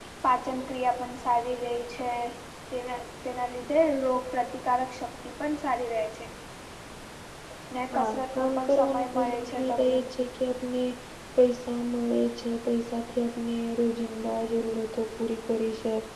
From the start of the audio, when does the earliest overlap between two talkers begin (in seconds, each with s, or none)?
8.0 s